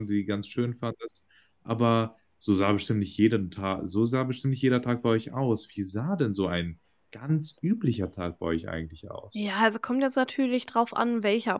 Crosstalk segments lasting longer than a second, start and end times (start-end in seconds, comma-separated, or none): none